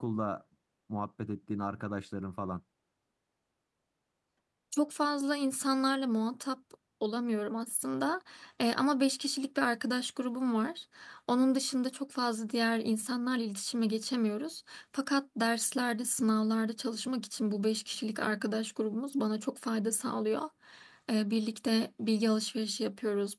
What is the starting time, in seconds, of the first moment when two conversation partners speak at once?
none

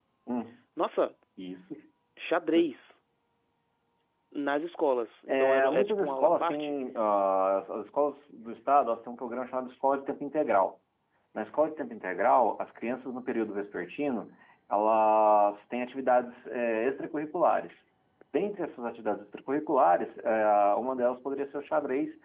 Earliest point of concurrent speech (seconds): 5.3 s

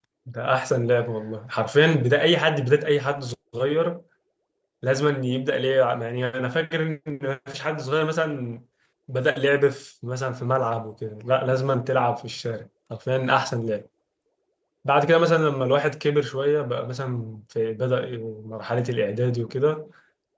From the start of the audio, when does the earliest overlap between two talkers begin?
none

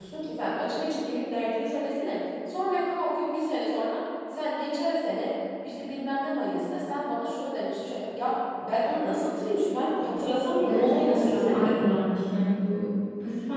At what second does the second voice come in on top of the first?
10.6 s

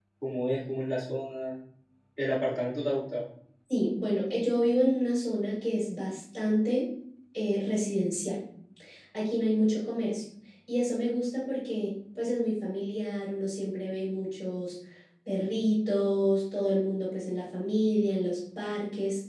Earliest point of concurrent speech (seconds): none

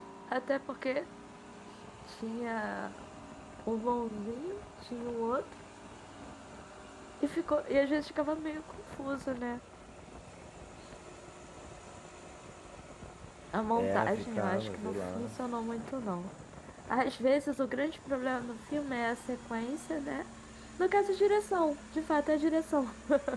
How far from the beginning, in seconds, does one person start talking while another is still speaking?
13.8 s

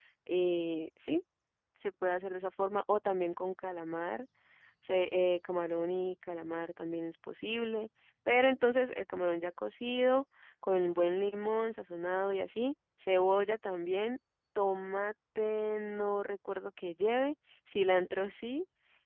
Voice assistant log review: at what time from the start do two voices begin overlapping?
none

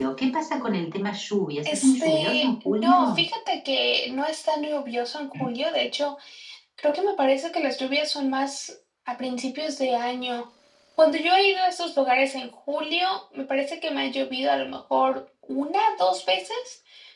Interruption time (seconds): 1.6 s

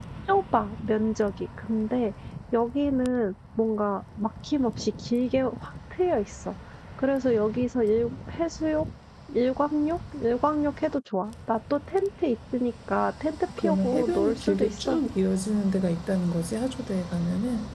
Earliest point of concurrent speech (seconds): 13.6 s

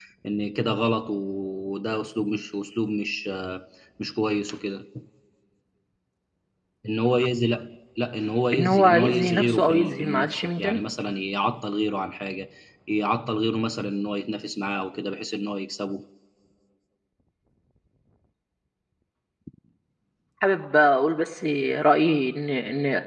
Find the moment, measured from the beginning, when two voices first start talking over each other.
8.5 s

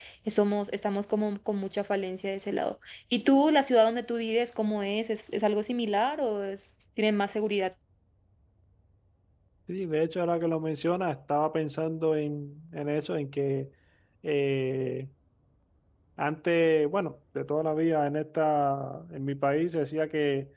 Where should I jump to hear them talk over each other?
none

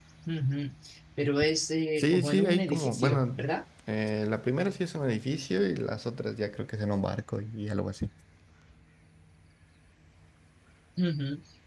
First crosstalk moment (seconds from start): 2.0 s

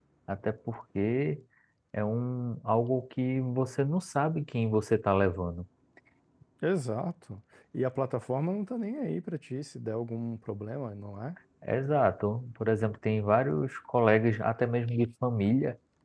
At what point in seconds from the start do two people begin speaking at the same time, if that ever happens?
none

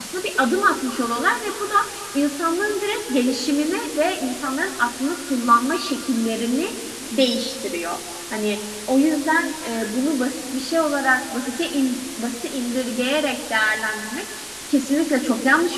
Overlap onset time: none

